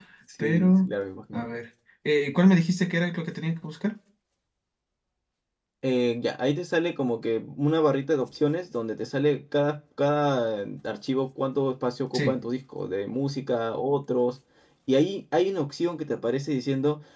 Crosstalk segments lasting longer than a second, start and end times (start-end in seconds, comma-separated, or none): none